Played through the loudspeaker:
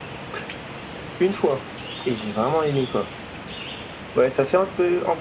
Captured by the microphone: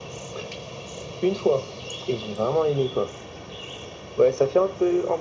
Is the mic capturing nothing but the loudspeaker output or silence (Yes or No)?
Yes